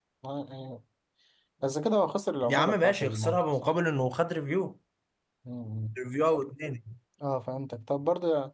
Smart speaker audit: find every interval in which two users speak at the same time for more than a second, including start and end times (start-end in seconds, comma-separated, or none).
2.4-3.8